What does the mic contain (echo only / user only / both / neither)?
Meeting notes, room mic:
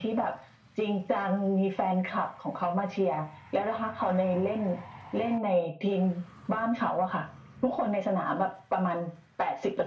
echo only